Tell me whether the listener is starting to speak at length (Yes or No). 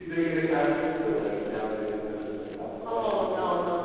Yes